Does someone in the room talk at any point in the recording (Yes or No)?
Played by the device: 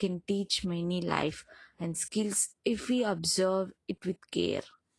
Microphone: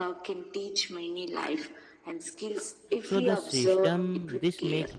Yes